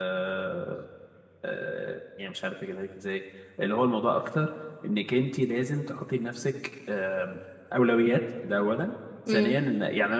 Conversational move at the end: listening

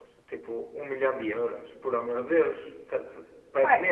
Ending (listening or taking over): taking over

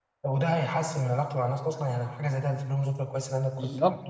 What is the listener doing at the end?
taking over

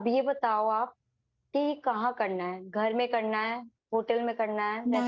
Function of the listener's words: taking over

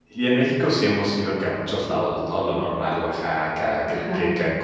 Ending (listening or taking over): listening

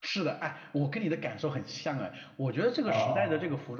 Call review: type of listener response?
listening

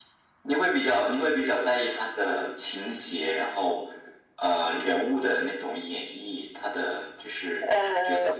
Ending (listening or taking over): taking over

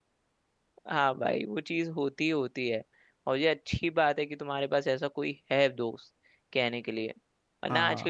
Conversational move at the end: listening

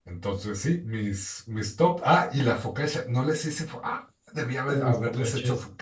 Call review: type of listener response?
taking over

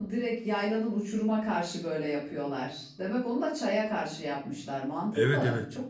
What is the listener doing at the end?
taking over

